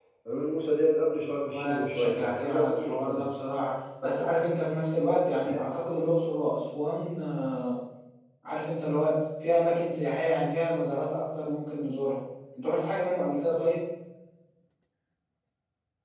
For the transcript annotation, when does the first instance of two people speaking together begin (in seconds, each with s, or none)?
1.5 s